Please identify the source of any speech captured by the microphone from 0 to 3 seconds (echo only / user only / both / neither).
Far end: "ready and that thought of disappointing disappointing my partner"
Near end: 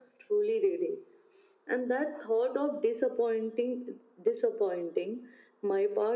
echo only